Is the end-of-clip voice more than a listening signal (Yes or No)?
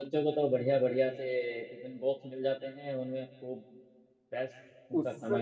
Yes